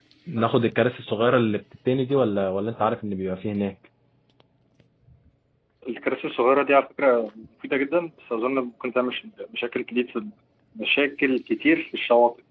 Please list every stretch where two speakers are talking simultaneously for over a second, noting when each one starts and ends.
none

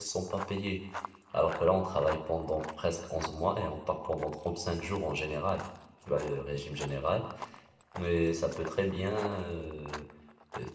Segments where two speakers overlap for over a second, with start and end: none

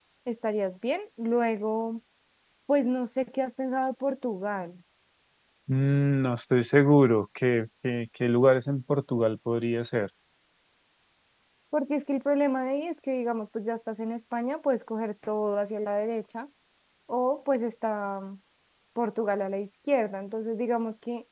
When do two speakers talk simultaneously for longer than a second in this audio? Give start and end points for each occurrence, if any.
none

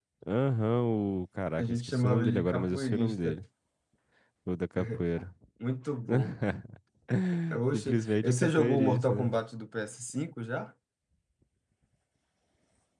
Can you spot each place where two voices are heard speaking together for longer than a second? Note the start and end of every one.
1.6-3.4, 7.7-9.4

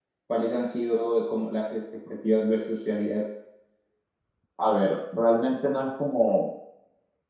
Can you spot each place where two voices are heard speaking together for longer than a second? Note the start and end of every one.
none

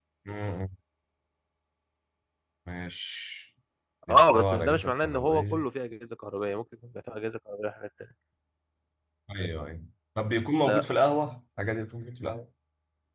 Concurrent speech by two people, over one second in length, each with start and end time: 4.1-5.6

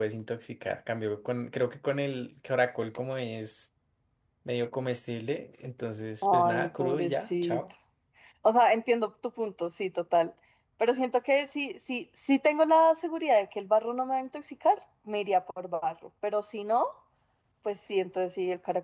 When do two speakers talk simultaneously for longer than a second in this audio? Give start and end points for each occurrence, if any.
6.3-7.6

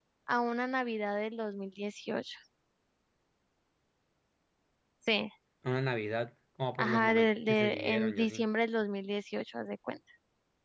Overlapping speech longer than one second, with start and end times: 6.8-8.4

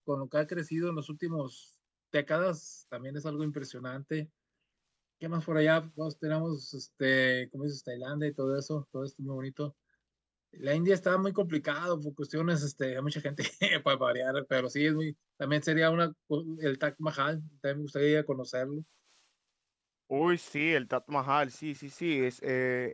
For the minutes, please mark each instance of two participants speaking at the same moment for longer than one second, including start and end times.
none

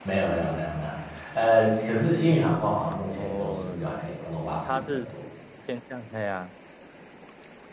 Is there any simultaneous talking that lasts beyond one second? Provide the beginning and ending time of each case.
3.2-5.1

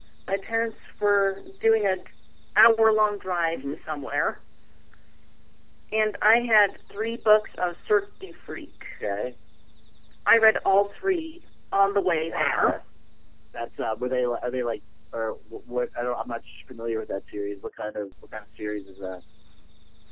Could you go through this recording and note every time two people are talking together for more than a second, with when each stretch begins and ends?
none

